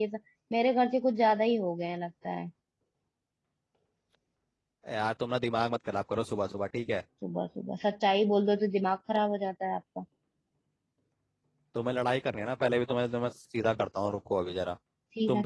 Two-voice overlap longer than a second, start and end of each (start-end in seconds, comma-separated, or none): none